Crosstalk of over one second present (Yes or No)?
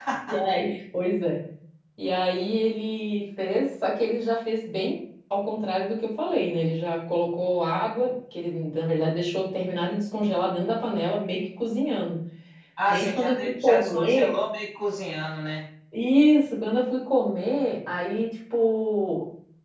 Yes